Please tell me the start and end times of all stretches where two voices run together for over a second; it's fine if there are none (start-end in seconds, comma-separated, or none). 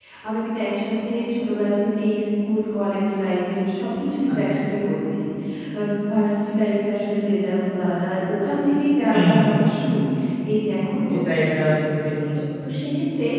none